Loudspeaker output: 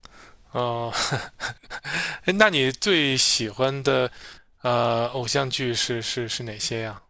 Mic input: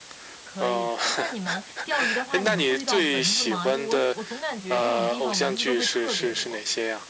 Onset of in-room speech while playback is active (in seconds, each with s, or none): 0.4 s